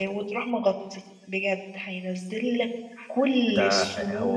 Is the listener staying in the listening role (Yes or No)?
No